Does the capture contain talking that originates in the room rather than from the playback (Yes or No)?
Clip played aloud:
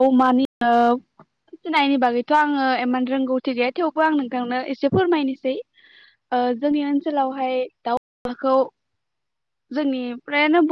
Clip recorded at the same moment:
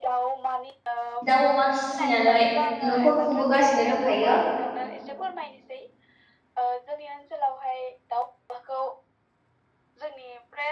Yes